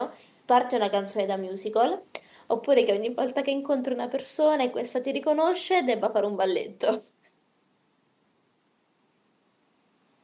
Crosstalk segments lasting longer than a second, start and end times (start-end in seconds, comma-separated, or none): none